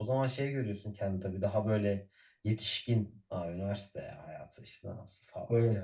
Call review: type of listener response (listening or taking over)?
listening